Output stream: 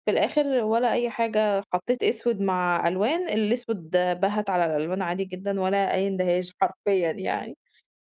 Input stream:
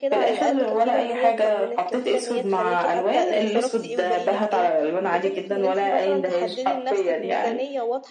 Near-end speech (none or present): present